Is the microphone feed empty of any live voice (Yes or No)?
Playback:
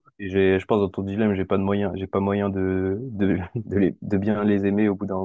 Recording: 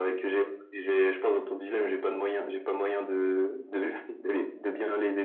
Yes